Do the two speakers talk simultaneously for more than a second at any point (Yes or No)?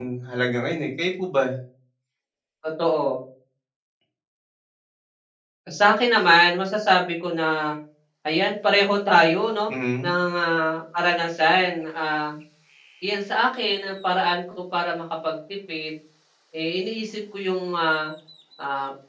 No